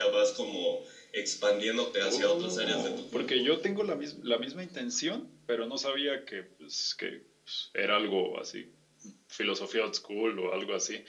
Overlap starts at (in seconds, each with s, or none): 2.0 s